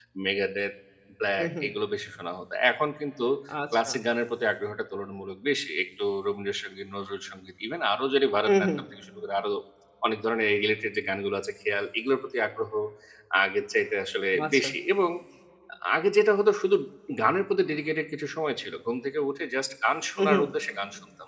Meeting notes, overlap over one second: none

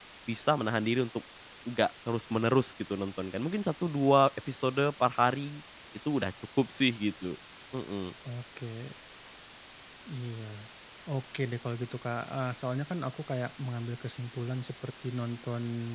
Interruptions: none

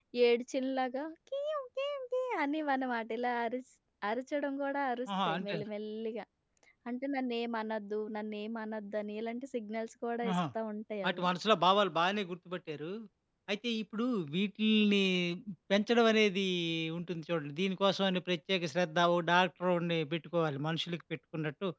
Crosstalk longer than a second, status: none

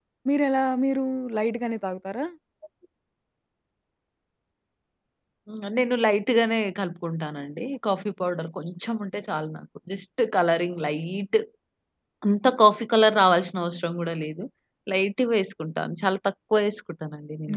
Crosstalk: none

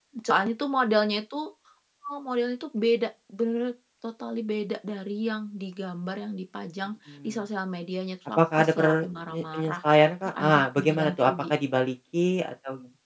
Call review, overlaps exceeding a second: present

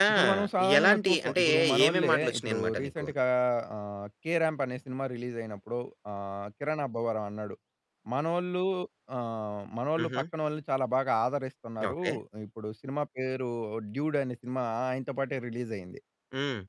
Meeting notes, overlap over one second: present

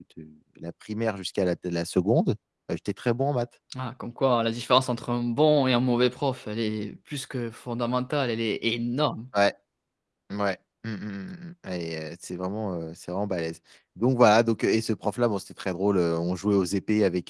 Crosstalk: none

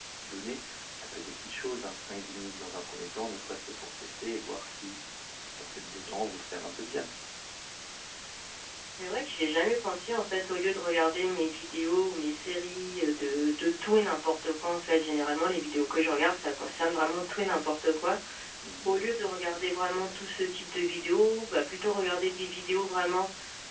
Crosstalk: none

